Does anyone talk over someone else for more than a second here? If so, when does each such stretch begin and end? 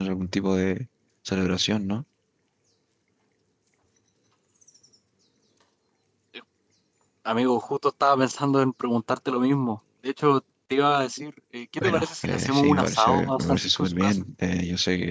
11.8-14.2

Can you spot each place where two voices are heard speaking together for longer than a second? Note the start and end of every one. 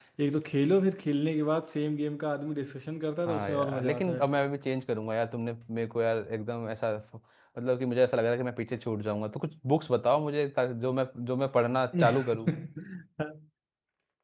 3.3-4.5

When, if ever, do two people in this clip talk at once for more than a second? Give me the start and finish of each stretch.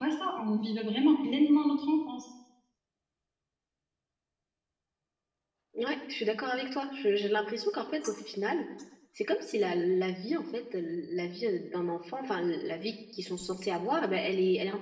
none

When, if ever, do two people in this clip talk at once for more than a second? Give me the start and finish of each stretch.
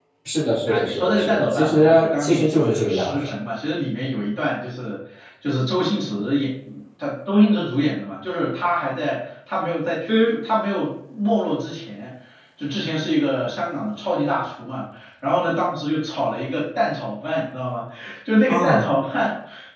0.7-3.2

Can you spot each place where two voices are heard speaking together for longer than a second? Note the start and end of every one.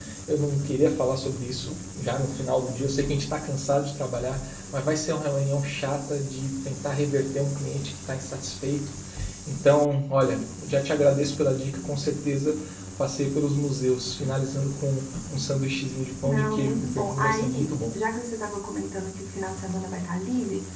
16.2-18.0

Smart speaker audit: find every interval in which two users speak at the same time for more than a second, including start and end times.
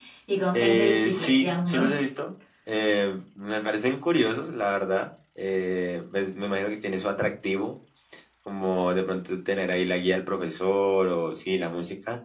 0.5-1.8

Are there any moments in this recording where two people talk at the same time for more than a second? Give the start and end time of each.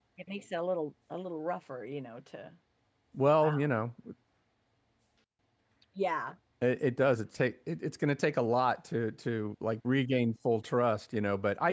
none

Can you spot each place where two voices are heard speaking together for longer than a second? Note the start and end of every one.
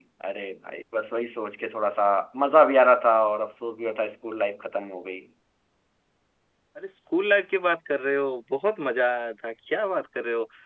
none

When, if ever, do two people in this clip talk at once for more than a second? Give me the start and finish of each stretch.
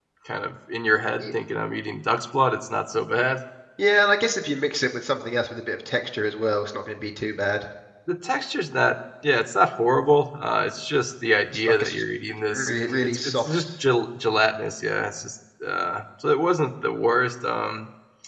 12.5-13.7

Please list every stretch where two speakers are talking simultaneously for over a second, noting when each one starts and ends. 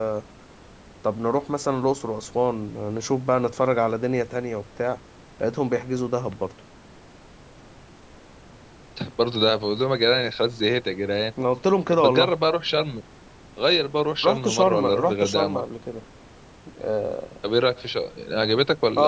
14.2-15.6

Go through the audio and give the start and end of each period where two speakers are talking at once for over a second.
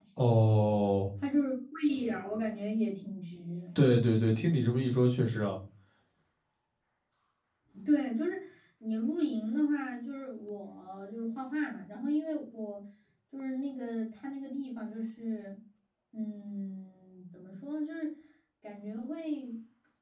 none

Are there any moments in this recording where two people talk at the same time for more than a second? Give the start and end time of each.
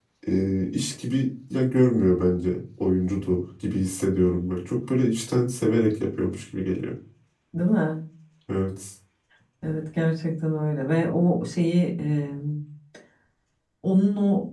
none

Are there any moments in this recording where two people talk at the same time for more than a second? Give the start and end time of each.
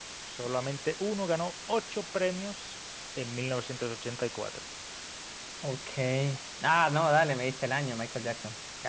none

